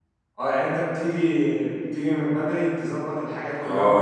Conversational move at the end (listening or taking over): taking over